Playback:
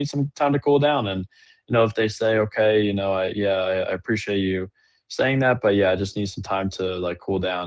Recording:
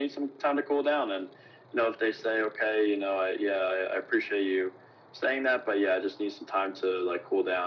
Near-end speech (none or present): none